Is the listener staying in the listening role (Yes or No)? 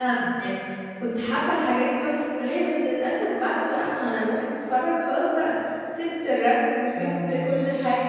Yes